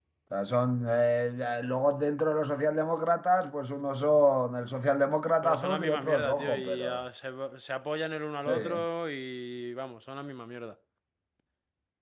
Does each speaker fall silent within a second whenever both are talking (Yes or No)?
No